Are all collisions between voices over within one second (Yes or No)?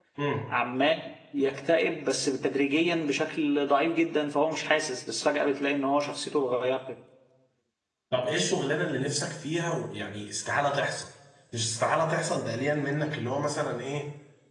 Yes